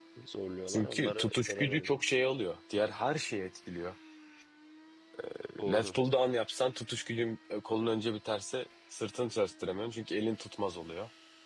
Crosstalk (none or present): present